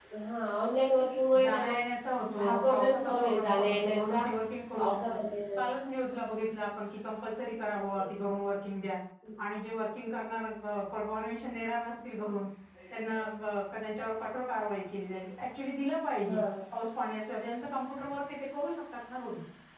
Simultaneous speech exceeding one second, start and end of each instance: 2.4-4.0

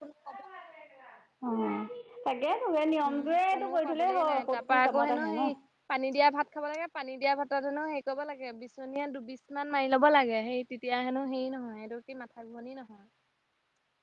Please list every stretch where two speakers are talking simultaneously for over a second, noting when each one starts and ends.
3.1-5.5

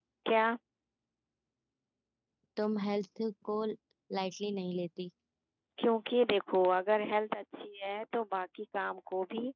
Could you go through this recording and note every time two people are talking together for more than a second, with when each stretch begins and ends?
none

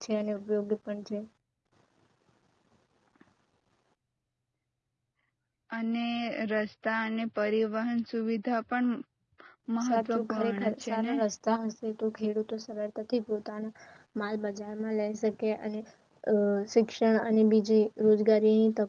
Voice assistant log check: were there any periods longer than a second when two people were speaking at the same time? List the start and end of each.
9.8-11.1

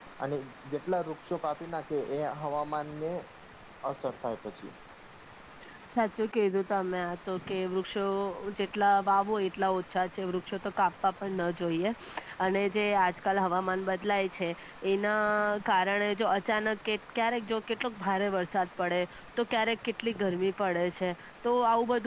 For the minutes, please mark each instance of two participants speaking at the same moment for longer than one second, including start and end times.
none

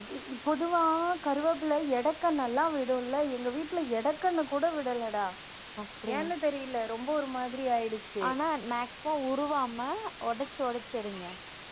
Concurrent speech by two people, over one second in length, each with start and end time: none

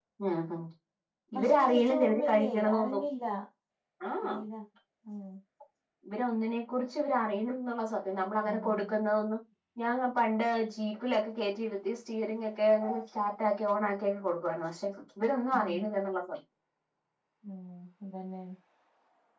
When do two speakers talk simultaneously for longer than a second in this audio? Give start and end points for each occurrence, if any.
1.4-3.0

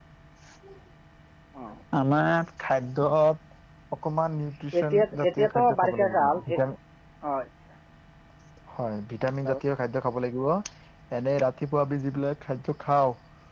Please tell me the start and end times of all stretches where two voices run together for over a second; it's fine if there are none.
4.8-6.6

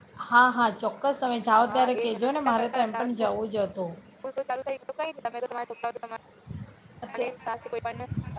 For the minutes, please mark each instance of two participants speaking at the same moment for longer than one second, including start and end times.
1.6-3.0

